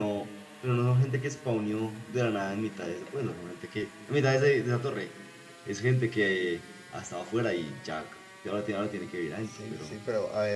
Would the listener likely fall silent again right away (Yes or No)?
No